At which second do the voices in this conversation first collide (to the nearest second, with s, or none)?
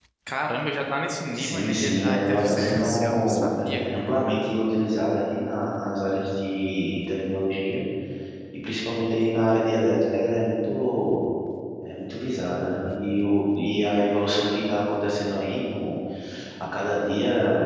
1 s